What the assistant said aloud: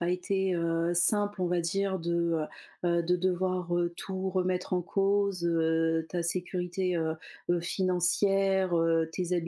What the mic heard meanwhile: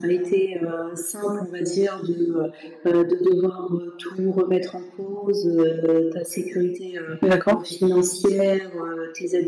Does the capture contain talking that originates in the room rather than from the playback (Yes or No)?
Yes